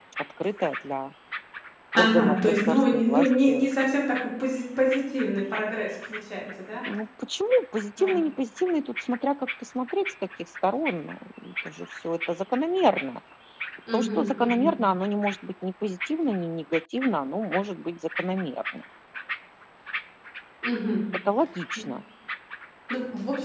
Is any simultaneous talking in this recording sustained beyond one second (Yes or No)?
Yes